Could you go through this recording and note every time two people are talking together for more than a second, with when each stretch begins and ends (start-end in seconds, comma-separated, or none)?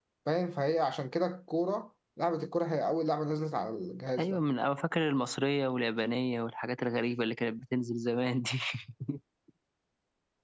none